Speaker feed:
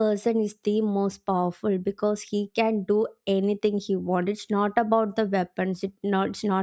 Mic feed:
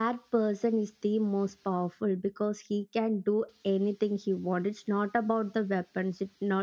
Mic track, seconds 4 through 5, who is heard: echo only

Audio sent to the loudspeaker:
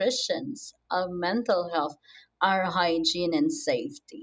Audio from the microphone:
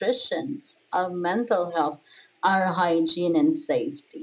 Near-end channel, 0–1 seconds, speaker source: echo only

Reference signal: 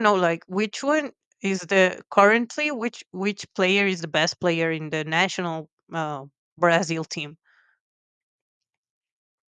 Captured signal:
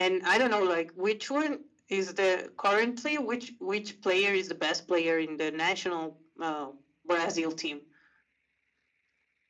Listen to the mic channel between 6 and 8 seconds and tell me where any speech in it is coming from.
echo only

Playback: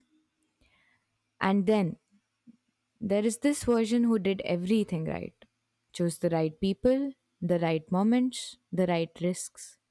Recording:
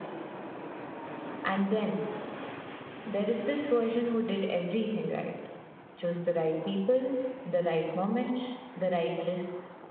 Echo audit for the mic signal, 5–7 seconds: echo only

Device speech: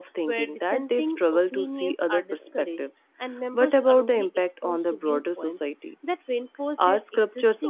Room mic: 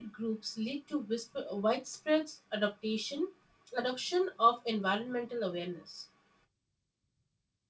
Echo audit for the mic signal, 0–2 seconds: user only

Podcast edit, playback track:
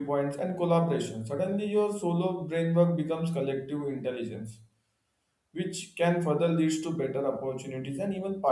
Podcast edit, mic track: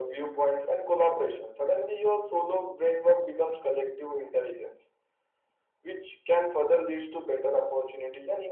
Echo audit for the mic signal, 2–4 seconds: echo only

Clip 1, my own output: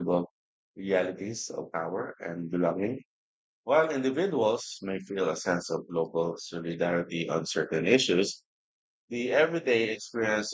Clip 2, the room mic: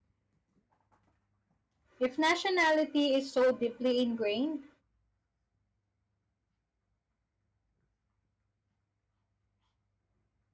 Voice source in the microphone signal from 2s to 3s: user only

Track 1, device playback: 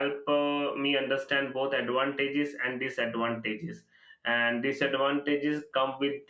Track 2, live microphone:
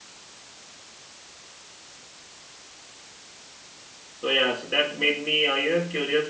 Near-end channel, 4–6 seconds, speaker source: user only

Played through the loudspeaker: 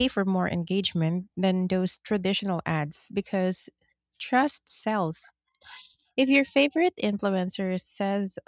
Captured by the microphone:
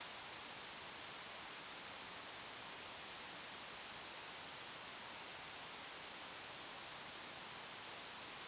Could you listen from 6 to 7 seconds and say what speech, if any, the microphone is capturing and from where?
neither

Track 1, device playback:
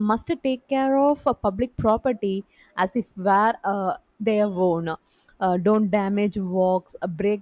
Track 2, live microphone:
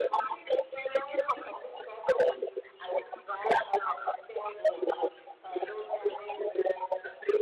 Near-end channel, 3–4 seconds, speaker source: echo only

